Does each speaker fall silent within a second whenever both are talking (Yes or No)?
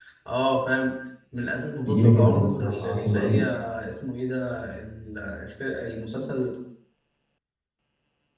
No